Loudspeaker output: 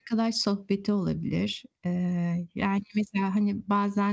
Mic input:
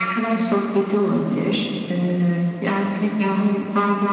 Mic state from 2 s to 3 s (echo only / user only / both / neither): echo only